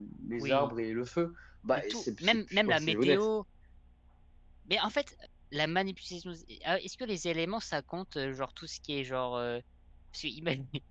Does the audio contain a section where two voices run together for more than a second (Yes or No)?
Yes